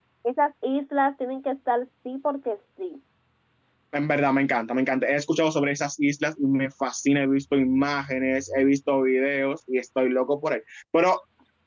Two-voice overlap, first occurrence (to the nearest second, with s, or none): none